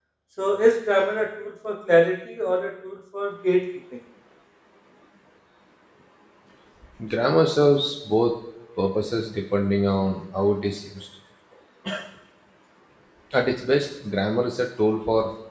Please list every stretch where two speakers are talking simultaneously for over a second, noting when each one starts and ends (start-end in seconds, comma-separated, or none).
none